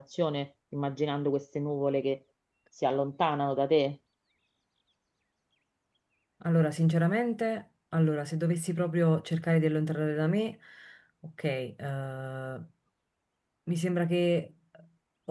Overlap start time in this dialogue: none

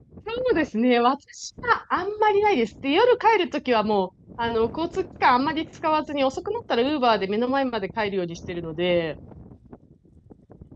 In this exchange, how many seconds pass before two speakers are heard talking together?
none

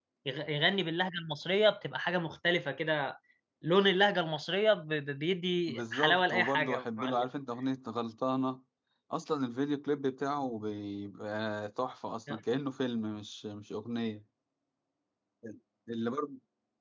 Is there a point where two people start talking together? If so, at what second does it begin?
5.7 s

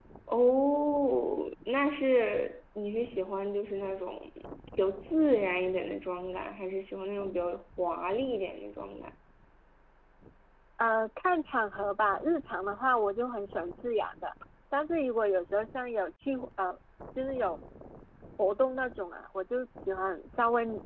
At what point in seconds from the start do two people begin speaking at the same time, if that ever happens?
none

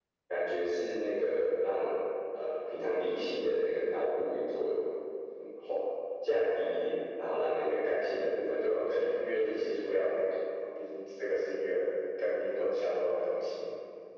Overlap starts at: 8.6 s

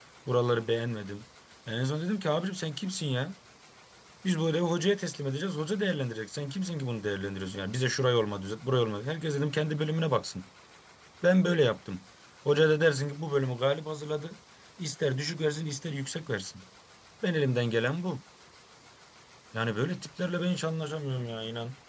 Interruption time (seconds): none

